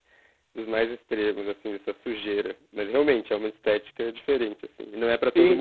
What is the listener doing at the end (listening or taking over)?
taking over